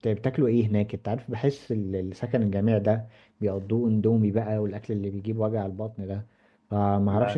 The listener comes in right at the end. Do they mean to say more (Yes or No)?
No